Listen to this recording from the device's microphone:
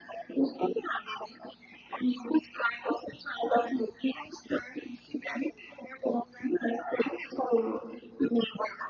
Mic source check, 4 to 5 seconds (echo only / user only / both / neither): echo only